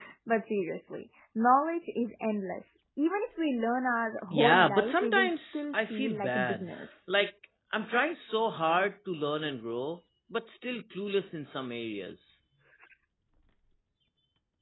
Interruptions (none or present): present